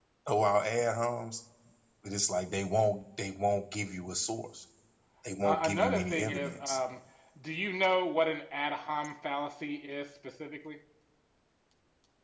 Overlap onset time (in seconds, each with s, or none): 5.4 s